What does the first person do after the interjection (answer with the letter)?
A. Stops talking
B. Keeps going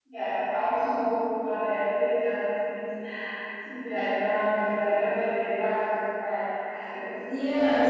A